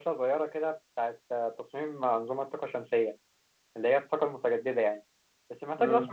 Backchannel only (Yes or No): Yes